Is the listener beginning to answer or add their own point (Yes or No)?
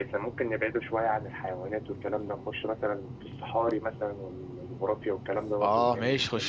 Yes